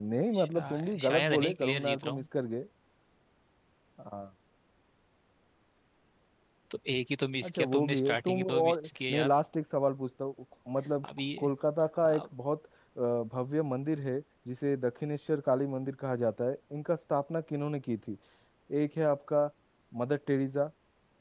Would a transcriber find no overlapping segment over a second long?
No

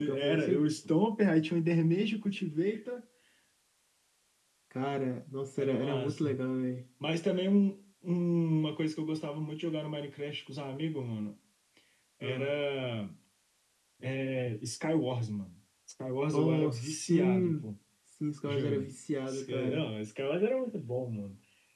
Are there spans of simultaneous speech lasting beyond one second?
Yes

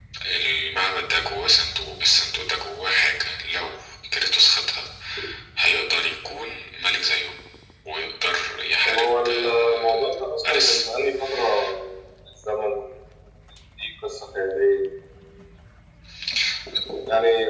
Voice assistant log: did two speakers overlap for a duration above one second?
Yes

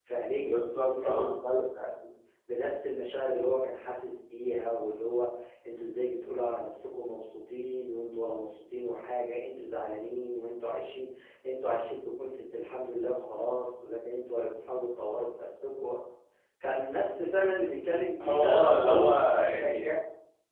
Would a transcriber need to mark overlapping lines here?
Yes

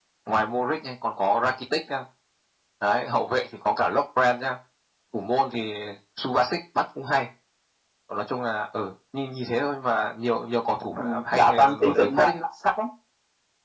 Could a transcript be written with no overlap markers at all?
No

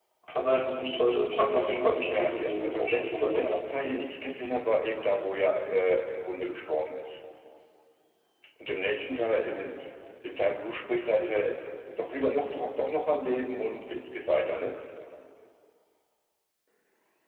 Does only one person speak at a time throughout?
No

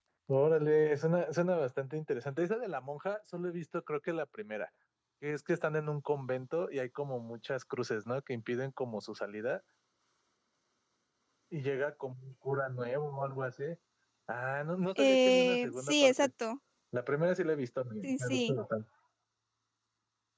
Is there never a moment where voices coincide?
No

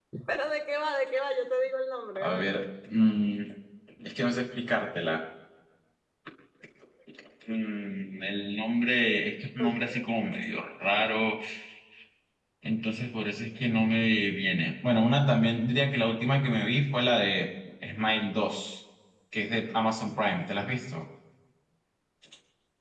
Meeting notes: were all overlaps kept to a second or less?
Yes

